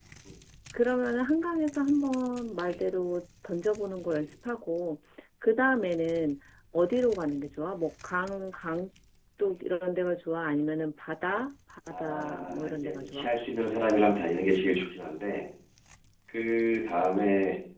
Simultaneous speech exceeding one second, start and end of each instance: 11.9-13.3

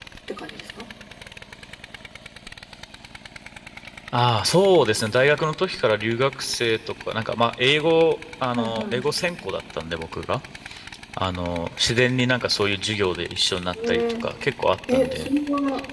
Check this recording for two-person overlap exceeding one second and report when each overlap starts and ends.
none

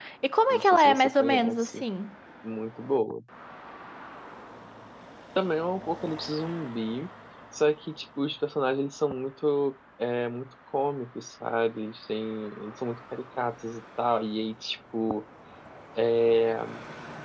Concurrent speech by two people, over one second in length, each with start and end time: 0.5-1.8

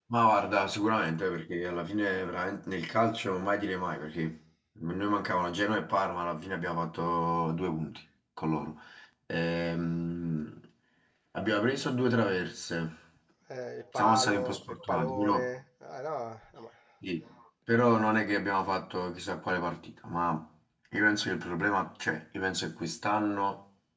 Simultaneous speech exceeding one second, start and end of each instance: 14.0-15.5

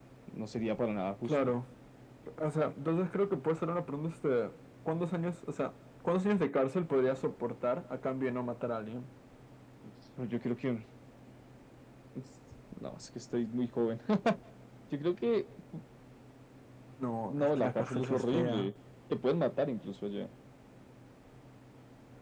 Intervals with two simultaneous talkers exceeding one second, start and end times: 17.3-18.7

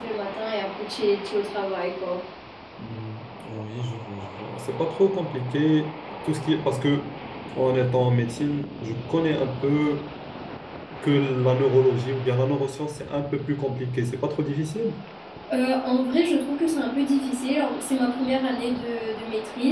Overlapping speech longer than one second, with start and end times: none

